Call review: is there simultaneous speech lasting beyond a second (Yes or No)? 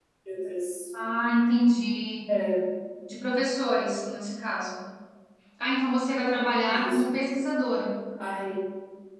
No